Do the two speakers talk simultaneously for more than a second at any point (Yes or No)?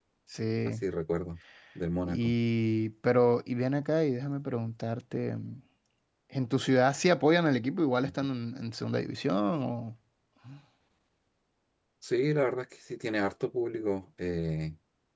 No